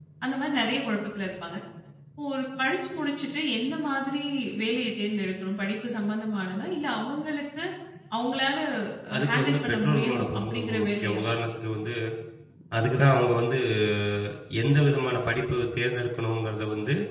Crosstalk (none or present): present